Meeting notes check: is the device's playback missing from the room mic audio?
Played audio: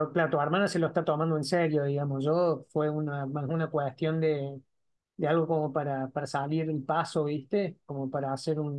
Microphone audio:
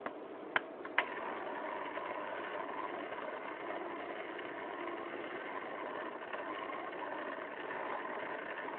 Yes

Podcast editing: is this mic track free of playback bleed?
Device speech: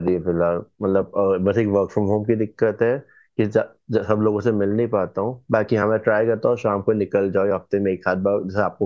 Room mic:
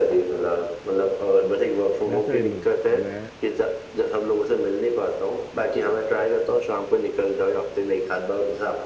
No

